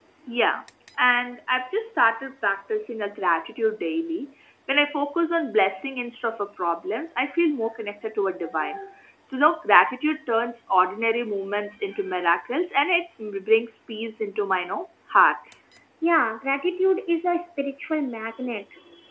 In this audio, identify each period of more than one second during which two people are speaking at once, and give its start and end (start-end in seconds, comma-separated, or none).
none